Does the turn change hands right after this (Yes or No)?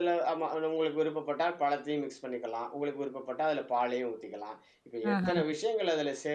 No